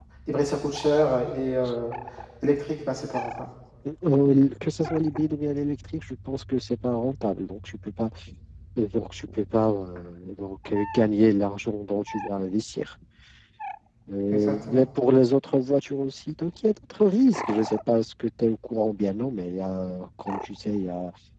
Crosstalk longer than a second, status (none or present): none